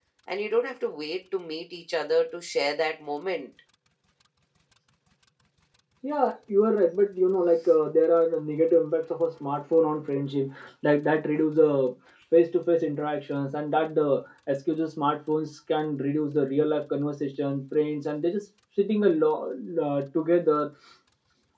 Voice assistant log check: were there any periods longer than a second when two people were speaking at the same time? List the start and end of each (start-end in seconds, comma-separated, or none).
none